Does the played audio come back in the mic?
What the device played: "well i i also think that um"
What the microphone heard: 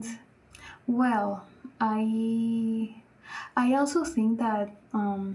Yes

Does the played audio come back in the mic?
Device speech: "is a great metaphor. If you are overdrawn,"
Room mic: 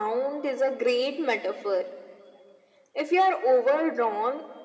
Yes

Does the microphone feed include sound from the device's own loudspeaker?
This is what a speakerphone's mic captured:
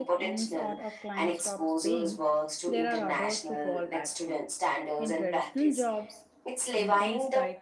Yes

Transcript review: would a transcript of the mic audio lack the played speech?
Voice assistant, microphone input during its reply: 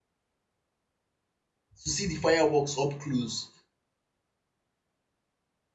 Yes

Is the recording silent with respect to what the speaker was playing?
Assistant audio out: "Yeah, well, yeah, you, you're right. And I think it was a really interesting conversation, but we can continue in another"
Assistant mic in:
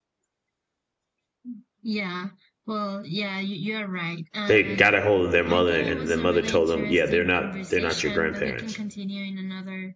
No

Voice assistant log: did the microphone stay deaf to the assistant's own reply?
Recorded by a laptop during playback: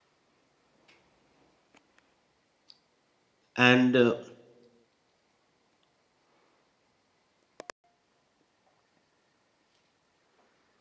Yes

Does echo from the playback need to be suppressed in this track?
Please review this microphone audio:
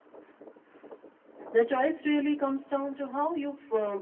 No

